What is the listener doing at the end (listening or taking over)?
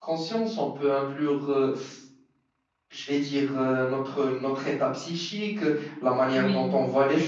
listening